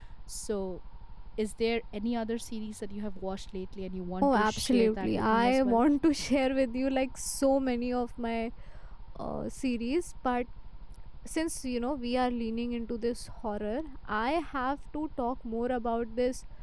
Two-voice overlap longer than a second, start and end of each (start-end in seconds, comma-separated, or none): 4.2-5.8